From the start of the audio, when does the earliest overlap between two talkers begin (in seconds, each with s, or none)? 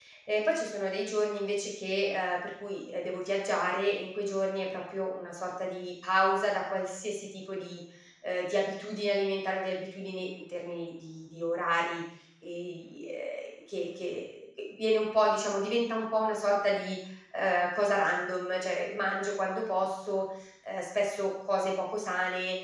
none